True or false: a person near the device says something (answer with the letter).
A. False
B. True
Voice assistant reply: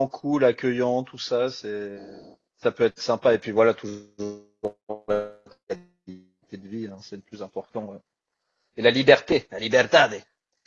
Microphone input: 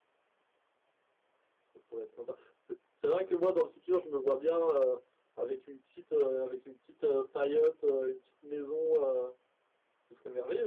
B